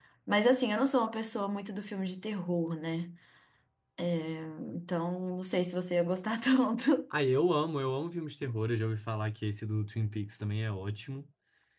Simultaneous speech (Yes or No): No